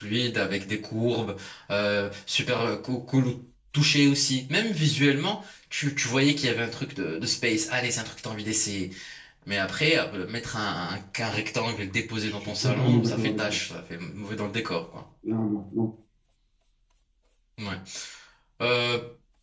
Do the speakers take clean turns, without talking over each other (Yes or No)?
No